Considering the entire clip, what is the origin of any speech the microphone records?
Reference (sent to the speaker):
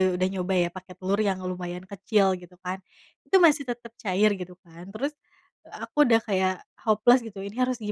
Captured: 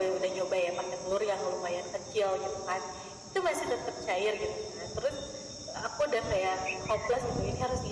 echo only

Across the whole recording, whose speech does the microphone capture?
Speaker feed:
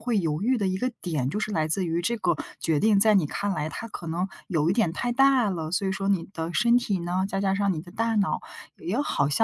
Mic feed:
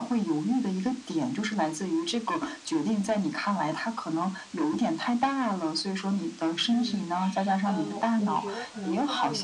both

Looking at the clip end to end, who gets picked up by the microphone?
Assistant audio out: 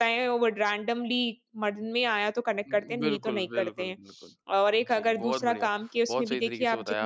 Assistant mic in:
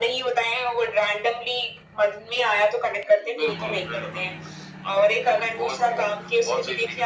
echo only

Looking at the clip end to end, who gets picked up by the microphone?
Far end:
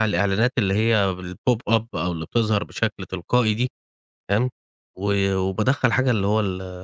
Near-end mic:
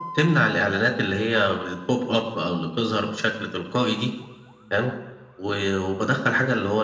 echo only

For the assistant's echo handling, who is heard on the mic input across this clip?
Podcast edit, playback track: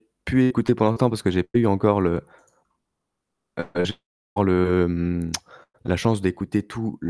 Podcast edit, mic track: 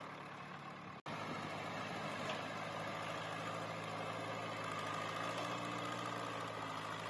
neither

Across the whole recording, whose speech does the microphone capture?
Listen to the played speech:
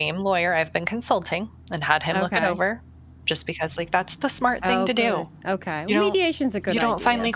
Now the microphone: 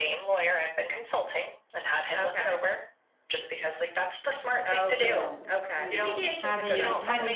both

